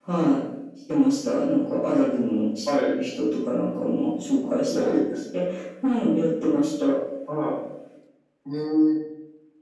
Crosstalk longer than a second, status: none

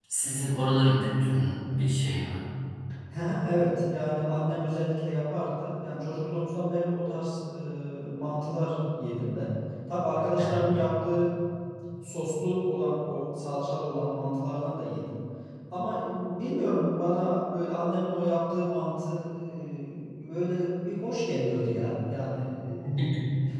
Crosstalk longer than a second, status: none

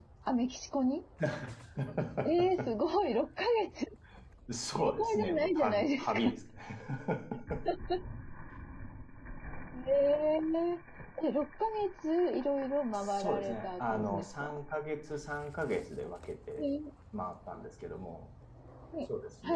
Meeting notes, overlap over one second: present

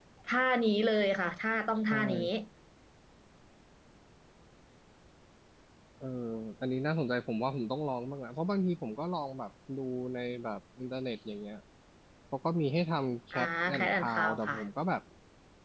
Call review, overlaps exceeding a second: present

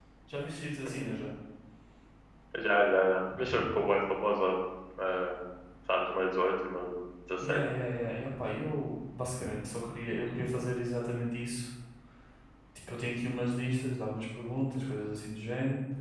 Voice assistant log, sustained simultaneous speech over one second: none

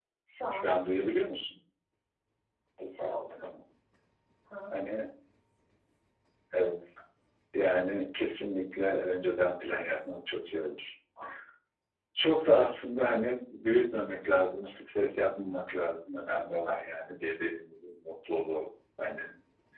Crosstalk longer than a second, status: none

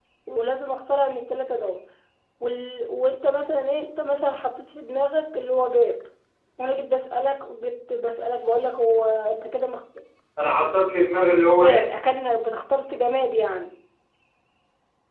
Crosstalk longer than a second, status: none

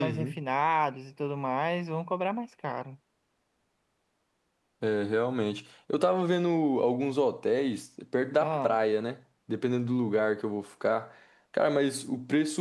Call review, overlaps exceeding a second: none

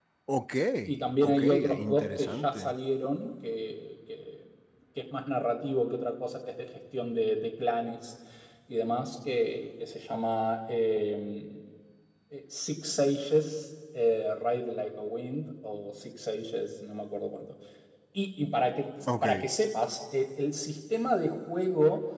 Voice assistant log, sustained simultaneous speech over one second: present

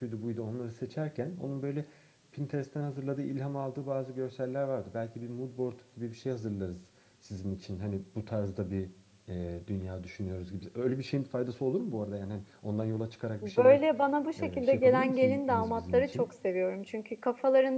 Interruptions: present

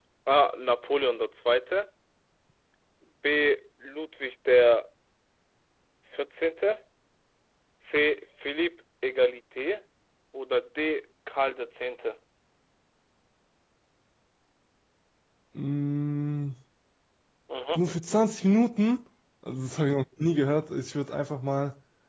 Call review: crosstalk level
none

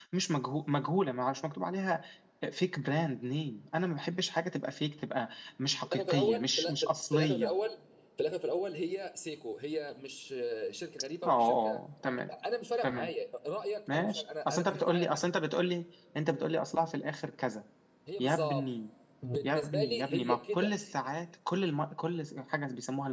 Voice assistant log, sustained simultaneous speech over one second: present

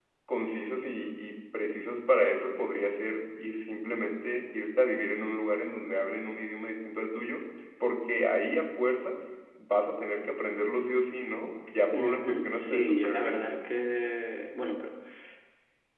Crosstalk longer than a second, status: present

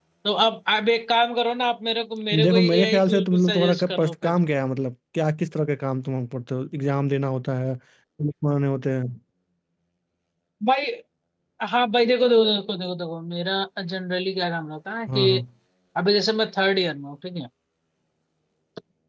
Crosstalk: present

